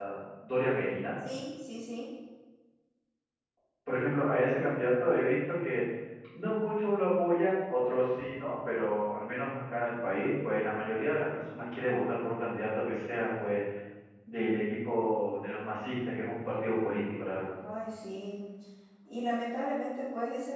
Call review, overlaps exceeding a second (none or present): none